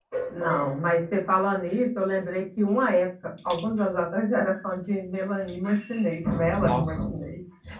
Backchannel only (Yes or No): No